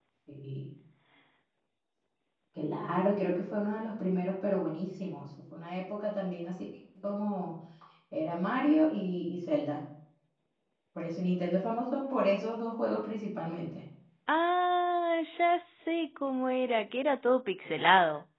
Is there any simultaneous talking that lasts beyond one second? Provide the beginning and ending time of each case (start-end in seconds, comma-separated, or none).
none